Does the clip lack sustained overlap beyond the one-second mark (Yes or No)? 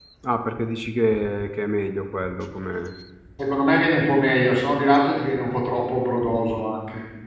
Yes